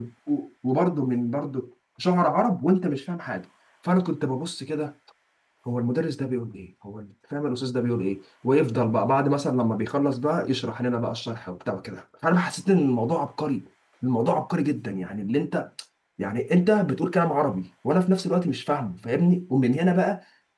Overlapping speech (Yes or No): No